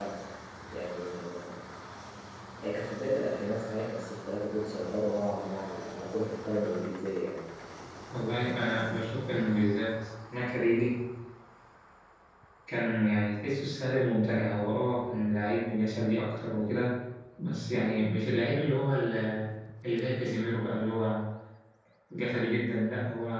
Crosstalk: none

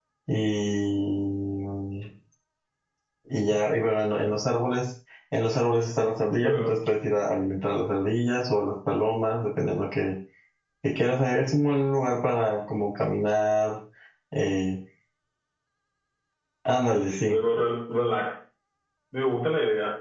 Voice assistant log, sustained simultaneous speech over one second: none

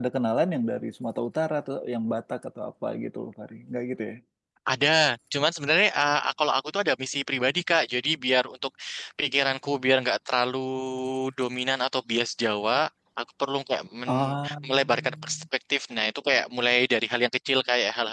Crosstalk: present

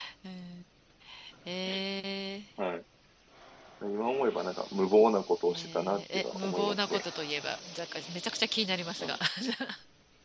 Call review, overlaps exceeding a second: present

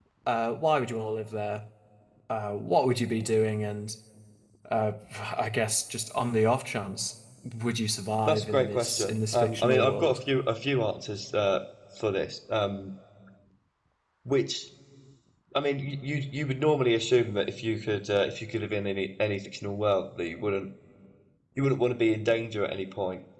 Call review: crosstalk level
present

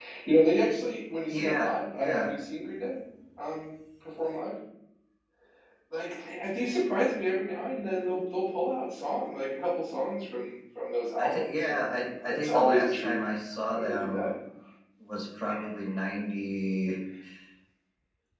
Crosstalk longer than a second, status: present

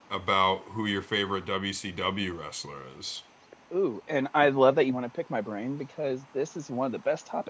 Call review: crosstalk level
none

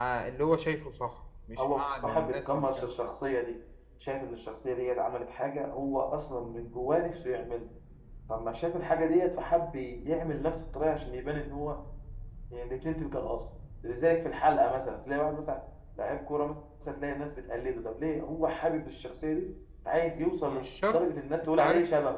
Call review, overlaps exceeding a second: present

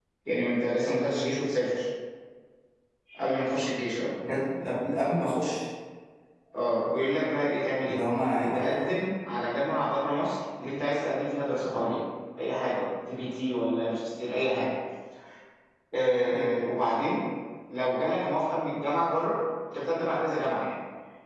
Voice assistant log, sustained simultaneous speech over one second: none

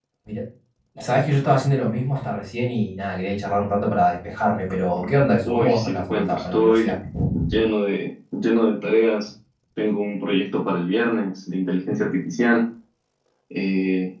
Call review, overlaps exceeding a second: present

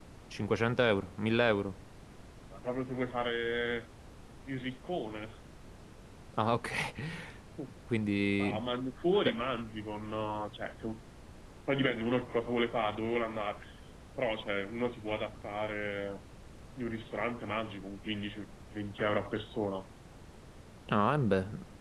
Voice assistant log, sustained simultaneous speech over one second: none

